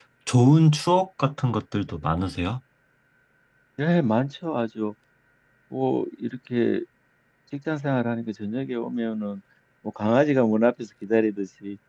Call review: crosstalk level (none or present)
none